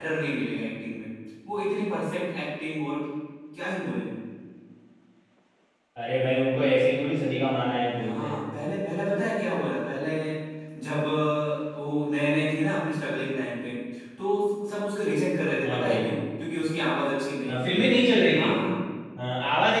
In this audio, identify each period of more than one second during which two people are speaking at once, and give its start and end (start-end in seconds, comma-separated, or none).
none